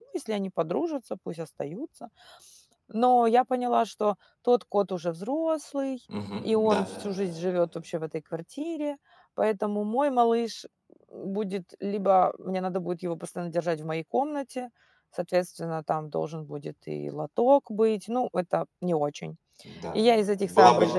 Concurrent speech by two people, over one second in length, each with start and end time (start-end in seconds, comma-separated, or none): none